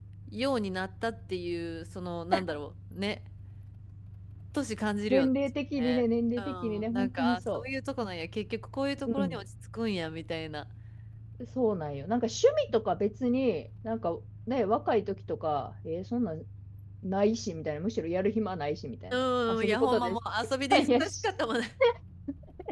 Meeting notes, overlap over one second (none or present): present